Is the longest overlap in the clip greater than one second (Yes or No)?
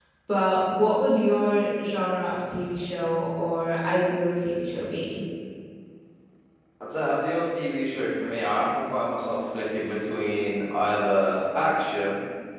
No